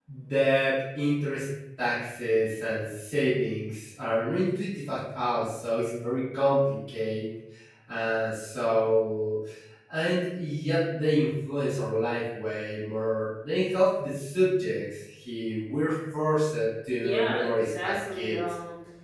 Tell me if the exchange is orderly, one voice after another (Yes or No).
No